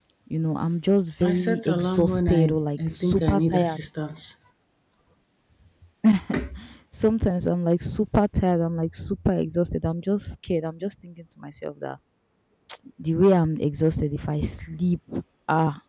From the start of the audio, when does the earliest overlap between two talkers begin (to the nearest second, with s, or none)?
1 s